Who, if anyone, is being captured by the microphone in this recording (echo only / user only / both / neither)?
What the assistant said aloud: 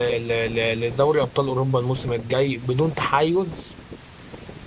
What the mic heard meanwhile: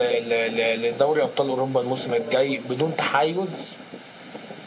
both